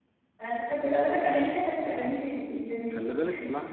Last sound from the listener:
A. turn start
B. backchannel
A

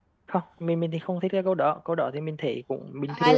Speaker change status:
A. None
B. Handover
B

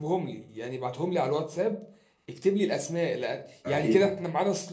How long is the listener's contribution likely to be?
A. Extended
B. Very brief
B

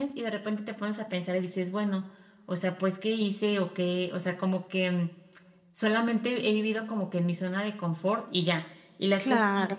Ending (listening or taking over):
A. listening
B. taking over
A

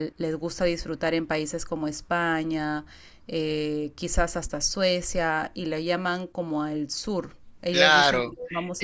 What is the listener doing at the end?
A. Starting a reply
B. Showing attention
A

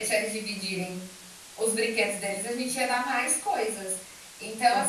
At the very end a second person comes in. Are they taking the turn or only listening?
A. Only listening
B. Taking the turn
A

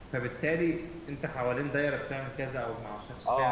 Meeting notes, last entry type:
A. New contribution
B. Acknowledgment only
A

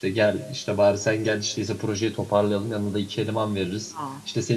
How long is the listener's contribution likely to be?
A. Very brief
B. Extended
A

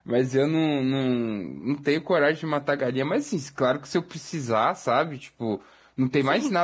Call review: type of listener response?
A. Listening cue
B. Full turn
A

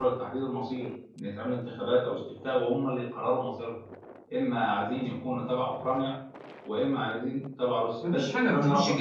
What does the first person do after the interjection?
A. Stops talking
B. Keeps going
A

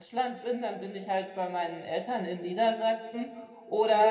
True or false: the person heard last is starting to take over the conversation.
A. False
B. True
A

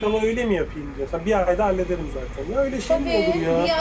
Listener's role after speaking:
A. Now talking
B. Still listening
A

